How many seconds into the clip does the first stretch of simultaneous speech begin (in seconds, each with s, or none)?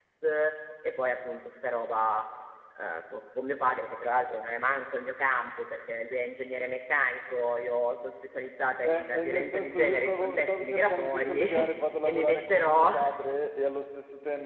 8.8 s